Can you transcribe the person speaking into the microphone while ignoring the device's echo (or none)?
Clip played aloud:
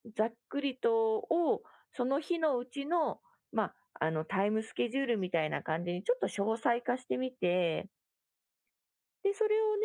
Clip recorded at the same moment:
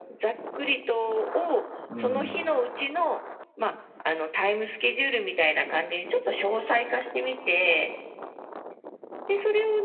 うん、